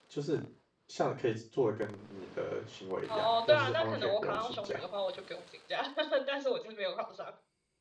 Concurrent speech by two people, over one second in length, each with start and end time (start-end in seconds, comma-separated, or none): 3.1-4.7